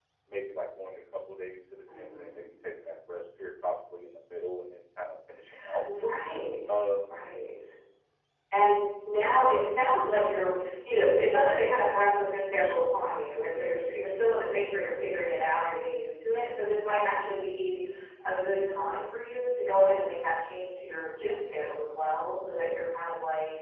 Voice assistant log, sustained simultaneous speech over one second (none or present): none